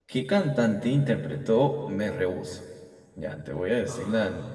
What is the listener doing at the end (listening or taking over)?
listening